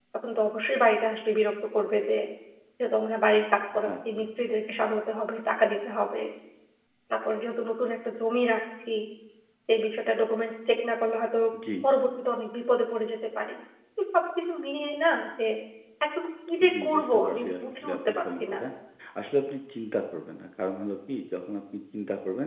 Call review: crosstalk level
present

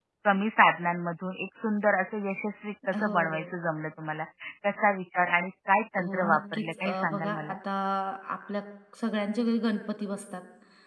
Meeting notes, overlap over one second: present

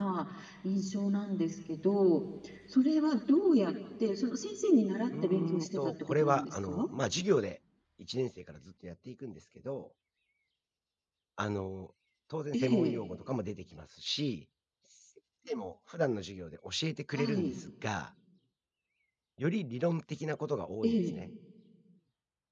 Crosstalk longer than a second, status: present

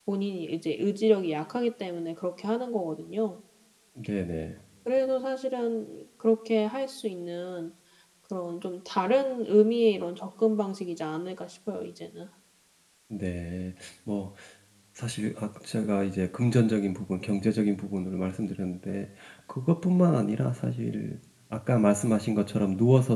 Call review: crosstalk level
none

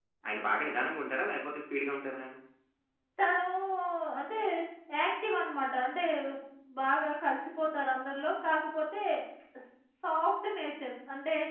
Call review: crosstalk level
none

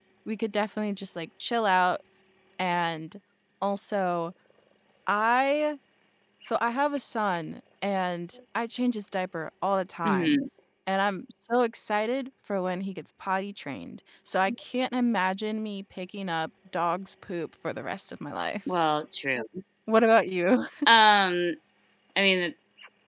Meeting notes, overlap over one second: none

